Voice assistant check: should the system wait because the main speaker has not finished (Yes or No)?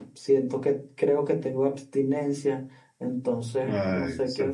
No